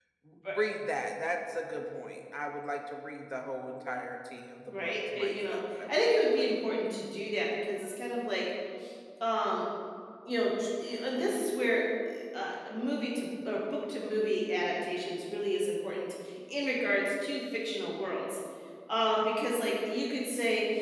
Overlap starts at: 5 s

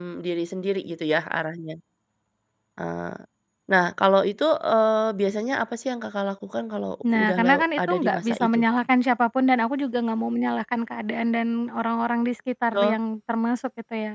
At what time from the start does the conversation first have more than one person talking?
7 s

